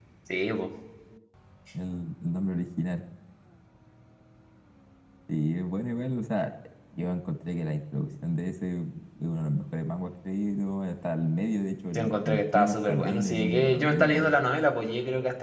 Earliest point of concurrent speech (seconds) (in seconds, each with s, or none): 11.9 s